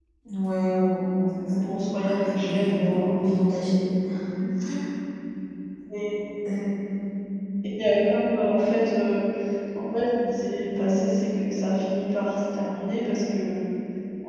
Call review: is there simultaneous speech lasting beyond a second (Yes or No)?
Yes